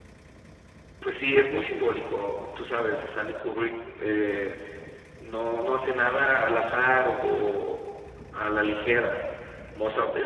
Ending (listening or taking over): listening